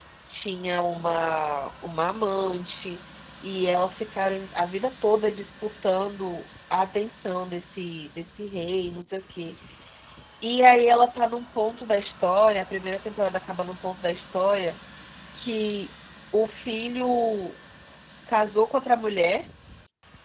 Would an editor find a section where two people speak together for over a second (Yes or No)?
No